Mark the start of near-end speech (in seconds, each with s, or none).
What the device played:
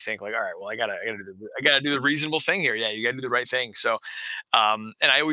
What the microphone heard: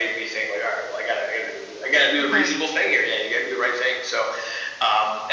2.2 s